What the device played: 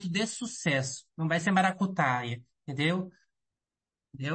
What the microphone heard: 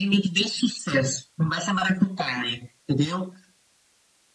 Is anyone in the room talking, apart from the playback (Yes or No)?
No